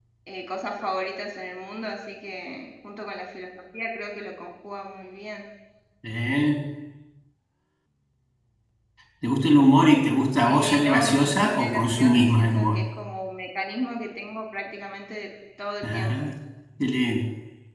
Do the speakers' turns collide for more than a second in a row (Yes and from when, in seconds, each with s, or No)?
Yes, from 10.5 s